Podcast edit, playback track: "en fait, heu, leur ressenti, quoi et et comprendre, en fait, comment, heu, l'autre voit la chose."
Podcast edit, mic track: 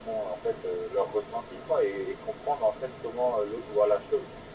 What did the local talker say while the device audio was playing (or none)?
none